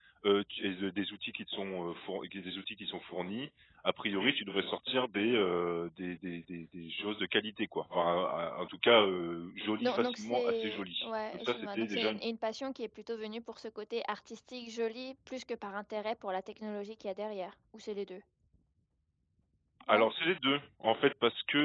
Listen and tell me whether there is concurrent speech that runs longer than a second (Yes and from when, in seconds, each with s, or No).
Yes, from 9.8 s